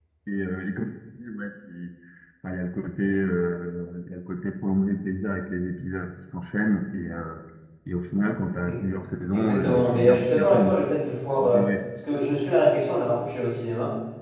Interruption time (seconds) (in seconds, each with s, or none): 9.3 s